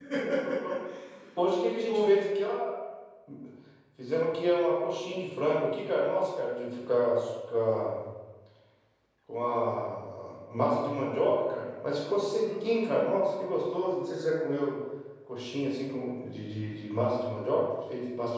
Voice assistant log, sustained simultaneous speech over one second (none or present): present